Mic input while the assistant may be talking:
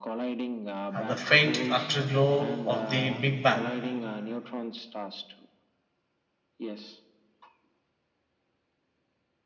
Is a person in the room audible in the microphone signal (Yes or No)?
Yes